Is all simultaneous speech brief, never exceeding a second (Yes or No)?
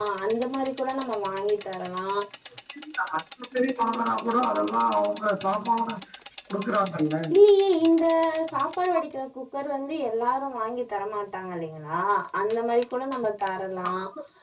Yes